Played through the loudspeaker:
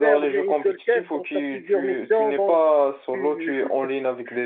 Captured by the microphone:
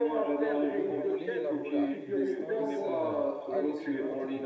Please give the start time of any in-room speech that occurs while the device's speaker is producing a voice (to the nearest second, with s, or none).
0 s